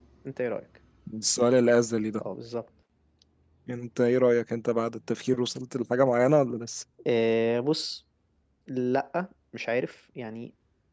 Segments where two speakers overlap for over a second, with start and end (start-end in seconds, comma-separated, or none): none